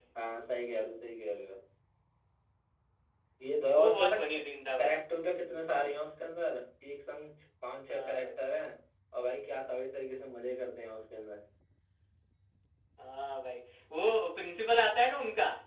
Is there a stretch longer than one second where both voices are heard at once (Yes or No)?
No